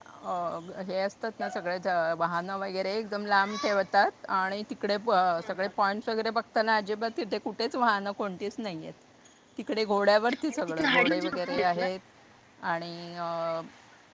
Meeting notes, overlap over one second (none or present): present